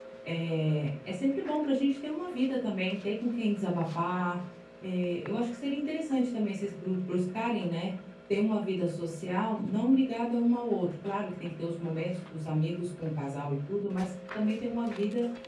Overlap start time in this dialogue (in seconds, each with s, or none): none